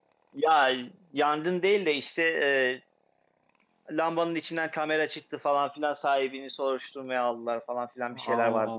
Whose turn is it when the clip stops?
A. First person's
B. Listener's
B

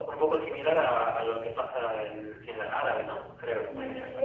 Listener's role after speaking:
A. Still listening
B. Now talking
B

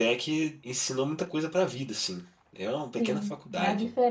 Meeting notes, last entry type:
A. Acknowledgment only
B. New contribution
B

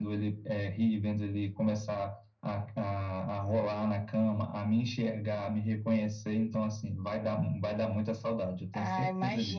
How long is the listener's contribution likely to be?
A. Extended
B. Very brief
A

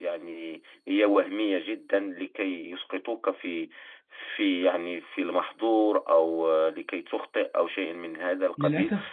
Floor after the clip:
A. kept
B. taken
B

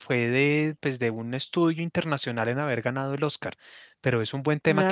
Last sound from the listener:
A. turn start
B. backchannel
B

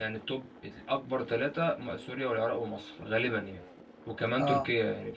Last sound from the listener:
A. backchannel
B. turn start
A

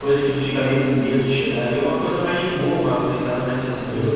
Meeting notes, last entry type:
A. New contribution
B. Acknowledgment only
A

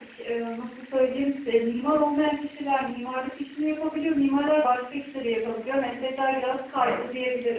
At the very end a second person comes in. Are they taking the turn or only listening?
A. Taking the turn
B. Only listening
A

